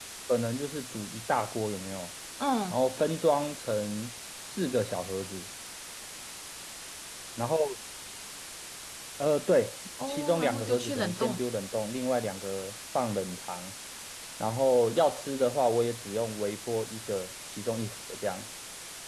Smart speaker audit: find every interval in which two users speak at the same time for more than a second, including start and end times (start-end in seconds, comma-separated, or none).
10.1-11.4